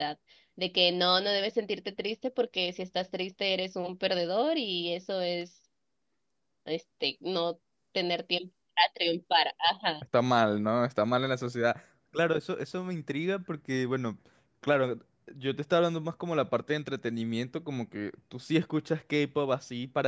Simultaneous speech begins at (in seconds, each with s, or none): none